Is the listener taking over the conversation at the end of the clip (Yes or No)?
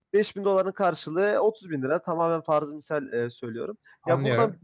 No